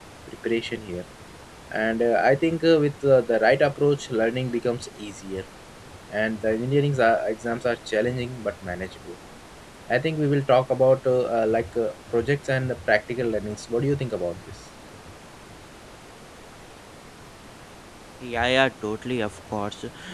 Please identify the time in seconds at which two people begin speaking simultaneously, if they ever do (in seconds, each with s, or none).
none